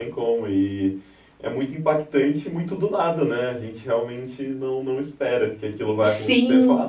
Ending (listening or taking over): listening